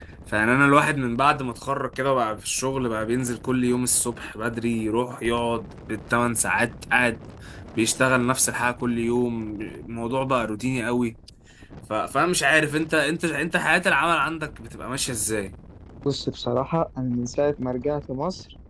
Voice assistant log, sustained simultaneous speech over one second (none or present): none